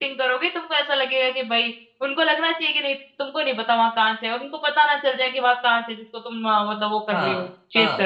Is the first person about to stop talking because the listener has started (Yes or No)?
Yes